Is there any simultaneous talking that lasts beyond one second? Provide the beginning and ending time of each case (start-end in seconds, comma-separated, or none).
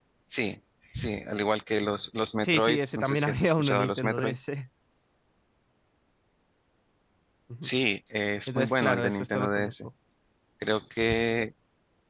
2.4-4.4, 8.5-9.7